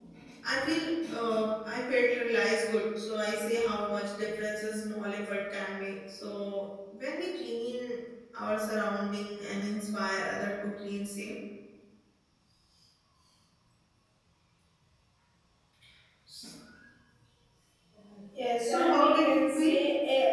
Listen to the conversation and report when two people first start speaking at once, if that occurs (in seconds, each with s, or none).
18.6 s